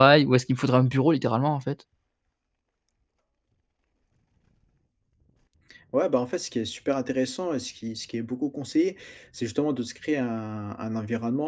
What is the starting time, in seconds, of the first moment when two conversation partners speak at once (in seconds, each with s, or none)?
none